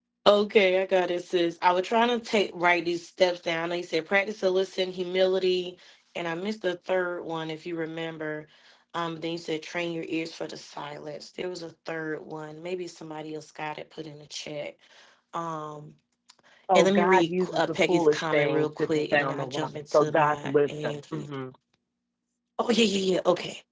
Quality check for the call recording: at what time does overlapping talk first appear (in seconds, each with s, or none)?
16.7 s